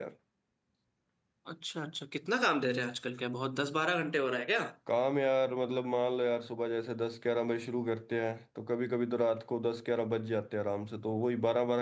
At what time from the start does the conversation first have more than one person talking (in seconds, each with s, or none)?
none